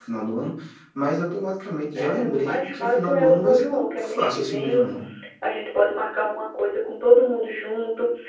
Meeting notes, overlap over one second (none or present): present